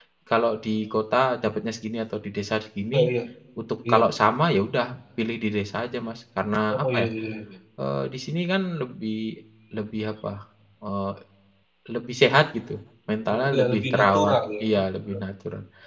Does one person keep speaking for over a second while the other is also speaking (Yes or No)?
Yes